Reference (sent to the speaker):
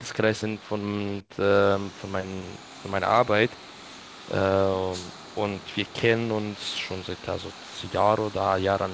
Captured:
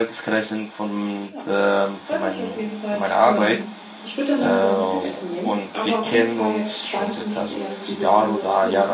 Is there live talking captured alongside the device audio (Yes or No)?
Yes